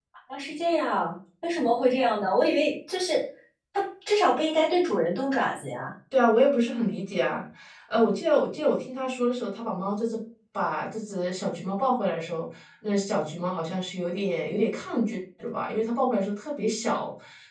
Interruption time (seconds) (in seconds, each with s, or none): none